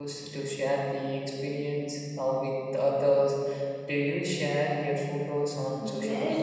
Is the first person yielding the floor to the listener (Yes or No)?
Yes